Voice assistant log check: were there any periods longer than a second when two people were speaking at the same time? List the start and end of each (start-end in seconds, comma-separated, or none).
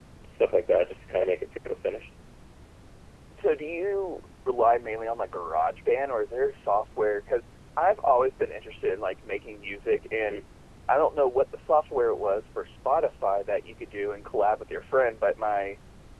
none